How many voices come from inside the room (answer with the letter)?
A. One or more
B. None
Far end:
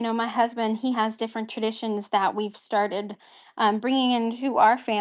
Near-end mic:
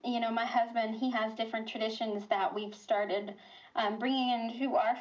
B